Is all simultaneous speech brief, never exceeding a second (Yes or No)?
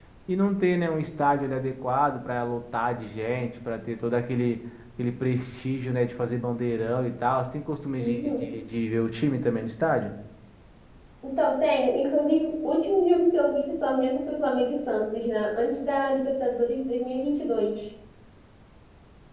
Yes